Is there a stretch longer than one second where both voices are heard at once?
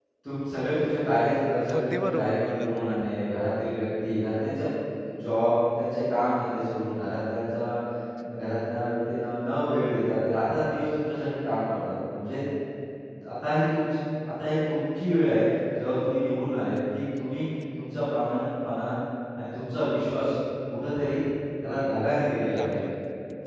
Yes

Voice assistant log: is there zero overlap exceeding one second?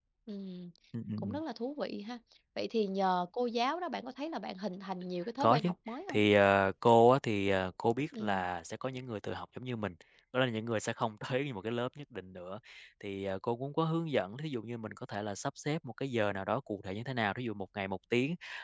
Yes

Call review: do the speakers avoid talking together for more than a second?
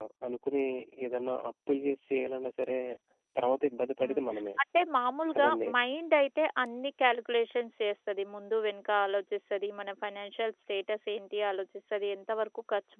Yes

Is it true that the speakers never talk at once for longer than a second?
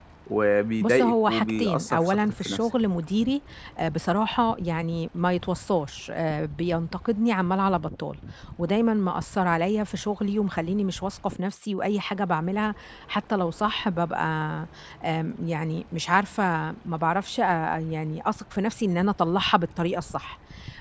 No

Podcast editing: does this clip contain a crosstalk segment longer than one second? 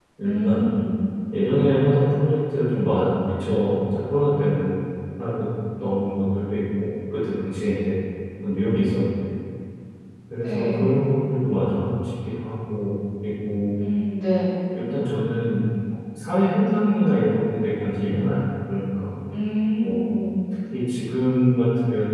No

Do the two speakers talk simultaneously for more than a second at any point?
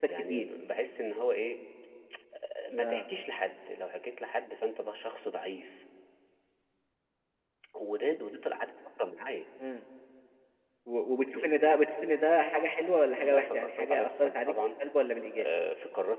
Yes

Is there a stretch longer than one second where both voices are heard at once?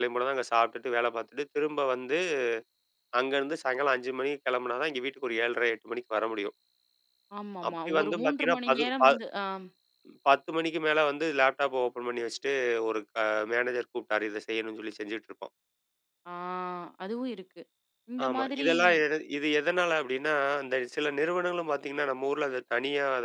Yes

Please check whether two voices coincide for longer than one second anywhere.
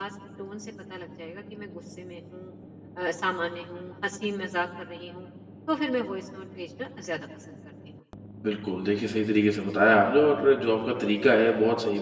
No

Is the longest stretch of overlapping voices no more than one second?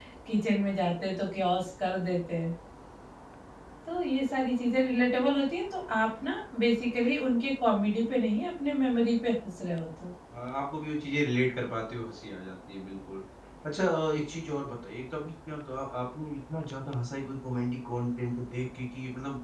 Yes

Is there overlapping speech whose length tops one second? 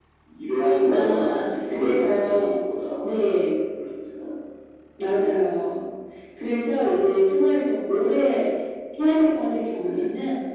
Yes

